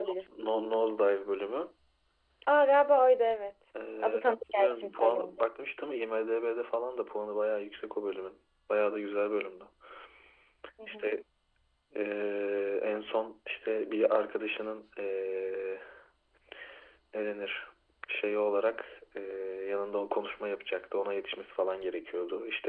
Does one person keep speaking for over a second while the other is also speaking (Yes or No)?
Yes